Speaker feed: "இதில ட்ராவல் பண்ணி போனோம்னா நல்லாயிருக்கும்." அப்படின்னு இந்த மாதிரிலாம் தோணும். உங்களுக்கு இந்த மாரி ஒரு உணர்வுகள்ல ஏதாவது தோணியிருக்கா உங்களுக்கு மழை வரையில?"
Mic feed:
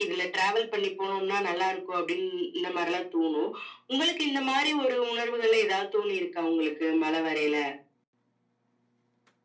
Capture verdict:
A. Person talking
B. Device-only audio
B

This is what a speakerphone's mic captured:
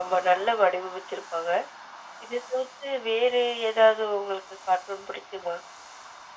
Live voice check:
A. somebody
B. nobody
B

